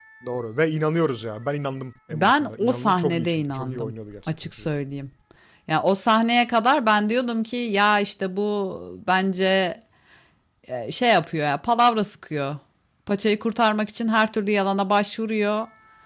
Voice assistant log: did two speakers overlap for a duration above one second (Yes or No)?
Yes